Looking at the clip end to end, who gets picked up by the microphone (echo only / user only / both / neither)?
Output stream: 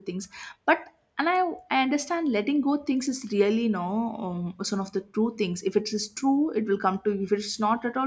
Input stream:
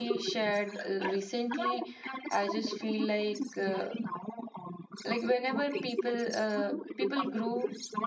both